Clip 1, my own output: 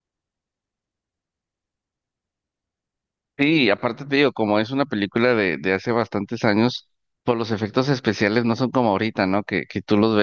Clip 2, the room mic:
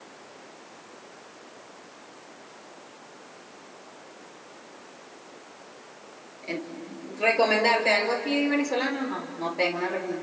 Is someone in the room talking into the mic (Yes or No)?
Yes